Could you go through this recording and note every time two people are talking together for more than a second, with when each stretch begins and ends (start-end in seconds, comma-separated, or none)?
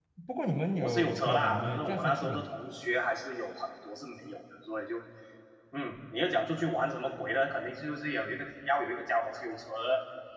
0.8-2.5